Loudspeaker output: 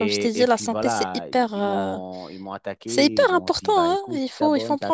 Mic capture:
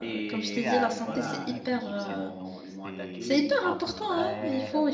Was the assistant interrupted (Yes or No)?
Yes